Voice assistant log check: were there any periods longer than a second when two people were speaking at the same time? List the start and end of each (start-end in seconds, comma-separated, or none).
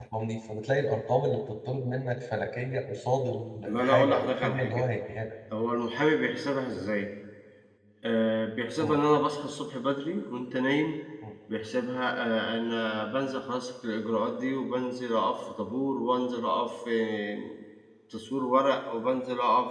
3.7-4.9